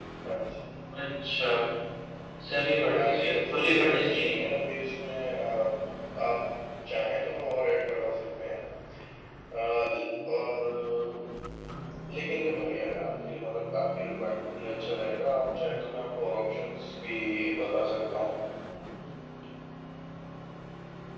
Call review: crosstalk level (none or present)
present